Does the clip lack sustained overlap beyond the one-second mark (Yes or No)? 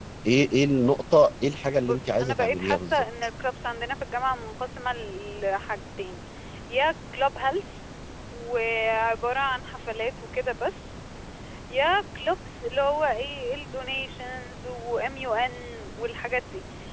No